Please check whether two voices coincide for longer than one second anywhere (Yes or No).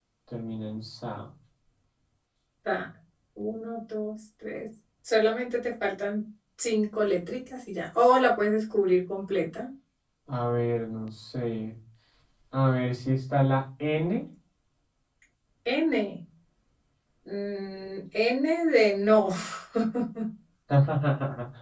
No